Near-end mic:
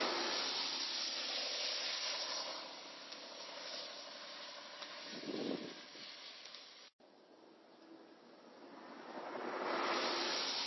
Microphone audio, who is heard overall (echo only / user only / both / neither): neither